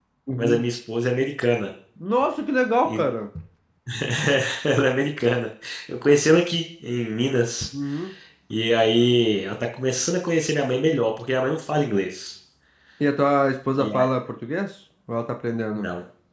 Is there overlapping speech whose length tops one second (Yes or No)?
No